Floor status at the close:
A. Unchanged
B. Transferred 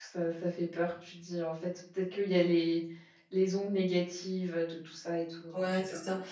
B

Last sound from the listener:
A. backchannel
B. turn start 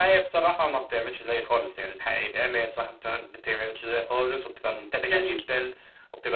A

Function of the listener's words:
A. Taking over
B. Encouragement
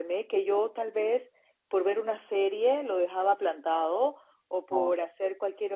B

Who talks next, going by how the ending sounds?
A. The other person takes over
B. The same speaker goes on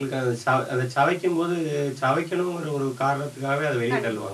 A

